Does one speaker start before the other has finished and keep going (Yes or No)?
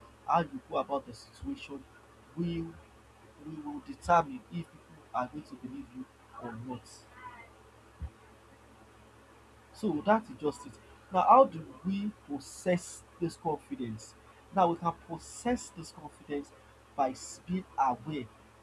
No